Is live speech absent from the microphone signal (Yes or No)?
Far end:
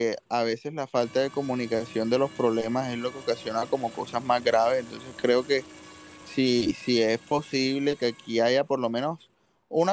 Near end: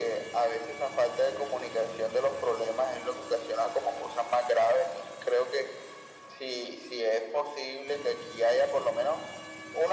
Yes